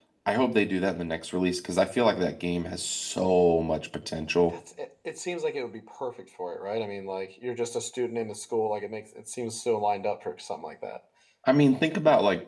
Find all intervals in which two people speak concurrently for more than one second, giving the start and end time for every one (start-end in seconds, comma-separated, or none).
none